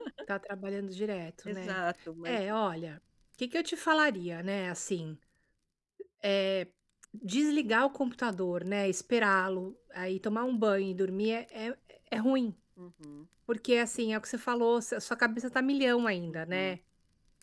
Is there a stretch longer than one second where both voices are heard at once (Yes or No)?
No